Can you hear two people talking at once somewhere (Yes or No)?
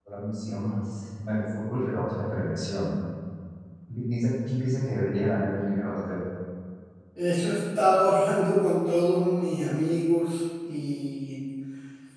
No